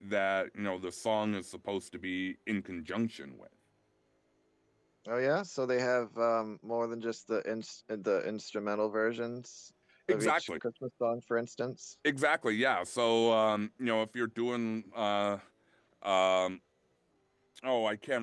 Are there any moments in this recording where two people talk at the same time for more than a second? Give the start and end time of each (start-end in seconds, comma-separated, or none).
none